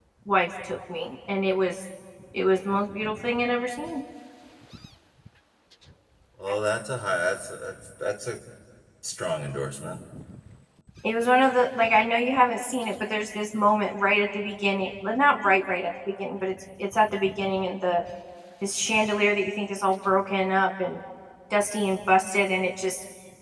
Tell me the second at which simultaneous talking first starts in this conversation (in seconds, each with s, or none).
none